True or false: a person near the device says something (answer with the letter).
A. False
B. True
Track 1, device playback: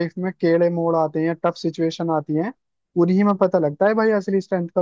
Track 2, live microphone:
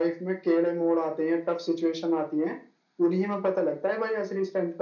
A